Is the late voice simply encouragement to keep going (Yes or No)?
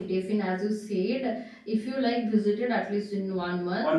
Yes